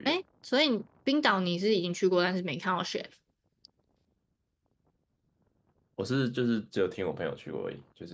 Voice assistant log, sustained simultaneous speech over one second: none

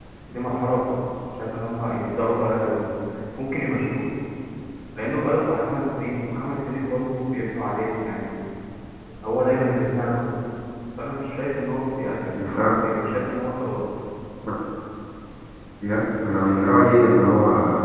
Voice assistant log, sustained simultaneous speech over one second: none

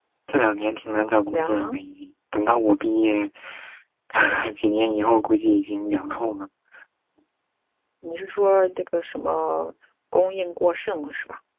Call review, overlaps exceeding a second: none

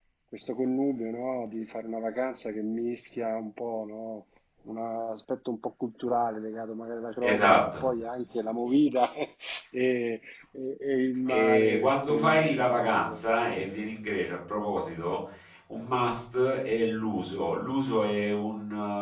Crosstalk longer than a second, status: present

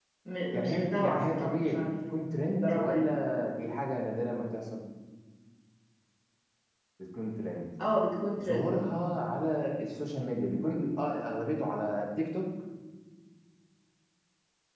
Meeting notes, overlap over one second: present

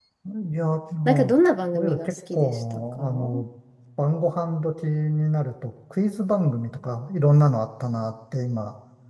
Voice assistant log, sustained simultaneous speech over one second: present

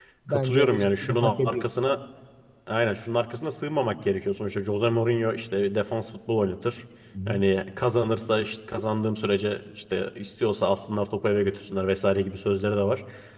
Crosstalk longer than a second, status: present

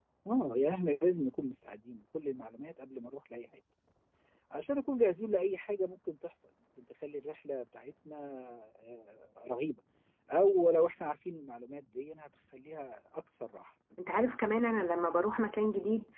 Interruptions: none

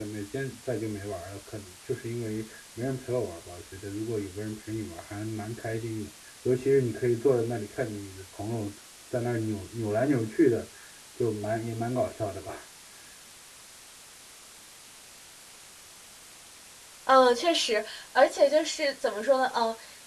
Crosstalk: none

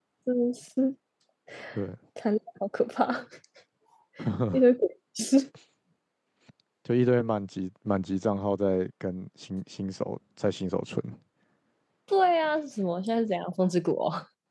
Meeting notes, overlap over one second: none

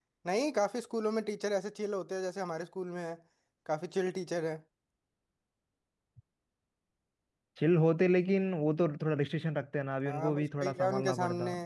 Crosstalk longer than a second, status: present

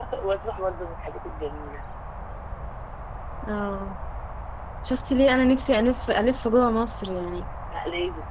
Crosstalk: none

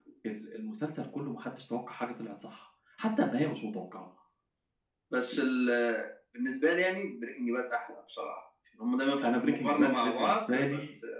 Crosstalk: present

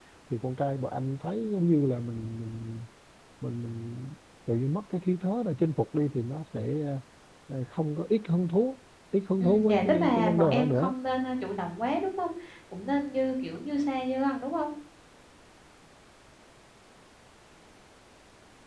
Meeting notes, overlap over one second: present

